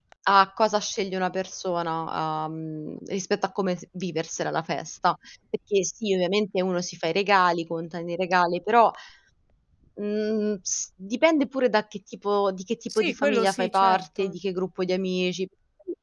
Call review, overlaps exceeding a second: present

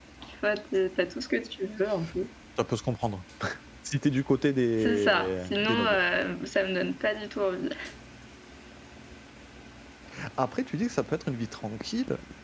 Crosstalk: present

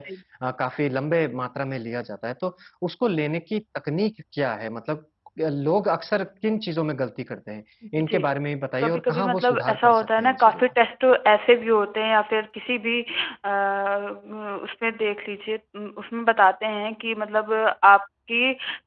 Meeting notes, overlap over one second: present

